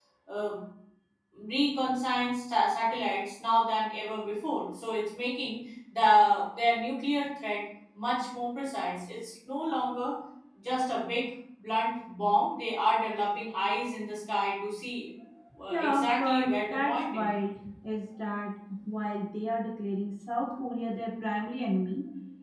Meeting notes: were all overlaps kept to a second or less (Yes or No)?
No